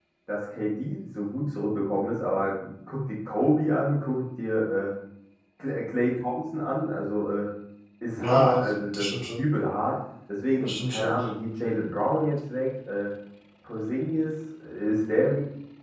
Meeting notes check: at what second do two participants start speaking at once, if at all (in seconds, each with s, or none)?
8.2 s